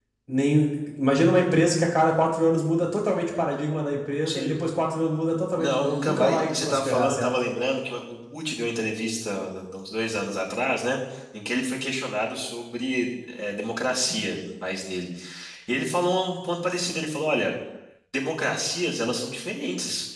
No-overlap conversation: No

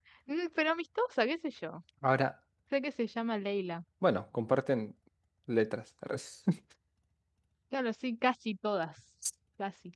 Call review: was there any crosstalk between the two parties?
No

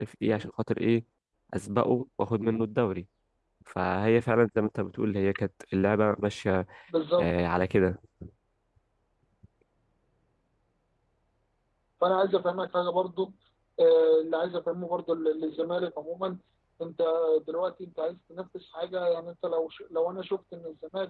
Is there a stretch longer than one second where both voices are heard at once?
No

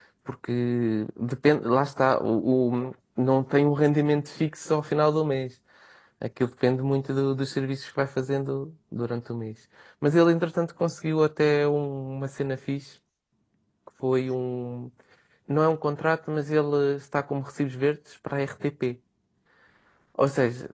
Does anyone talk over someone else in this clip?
No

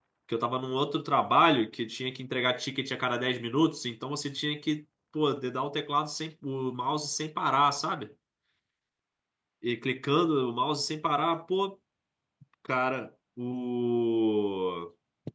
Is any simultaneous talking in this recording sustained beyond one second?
No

